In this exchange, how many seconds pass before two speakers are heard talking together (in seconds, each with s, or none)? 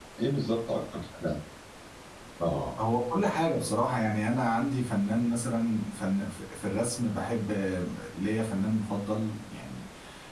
none